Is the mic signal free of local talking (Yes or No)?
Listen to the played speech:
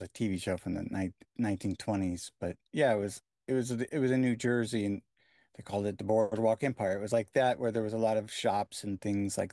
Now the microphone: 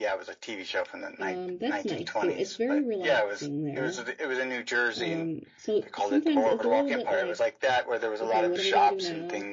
No